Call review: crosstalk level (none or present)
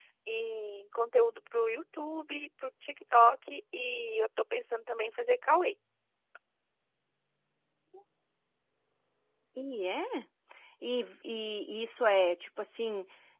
none